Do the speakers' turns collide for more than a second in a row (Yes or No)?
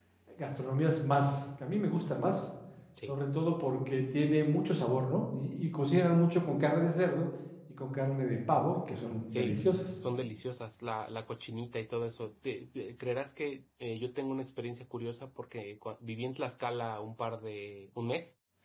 No